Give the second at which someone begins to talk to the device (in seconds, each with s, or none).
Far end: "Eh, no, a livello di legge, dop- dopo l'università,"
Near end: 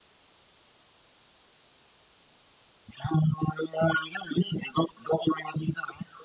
none